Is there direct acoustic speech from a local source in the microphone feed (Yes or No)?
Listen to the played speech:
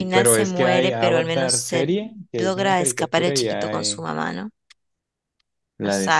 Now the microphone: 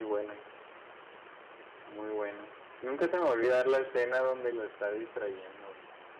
Yes